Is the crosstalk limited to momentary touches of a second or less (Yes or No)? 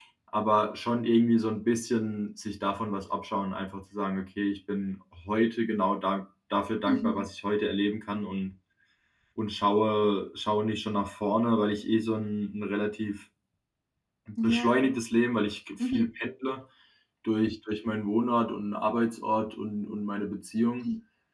Yes